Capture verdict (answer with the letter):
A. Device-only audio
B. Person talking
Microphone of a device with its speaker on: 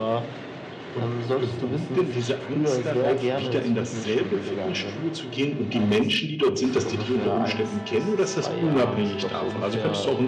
A